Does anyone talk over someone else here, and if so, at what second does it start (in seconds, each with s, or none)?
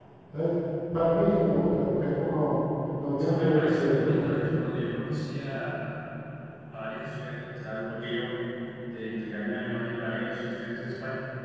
3.2 s